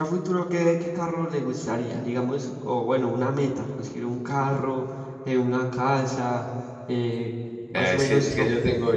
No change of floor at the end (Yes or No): No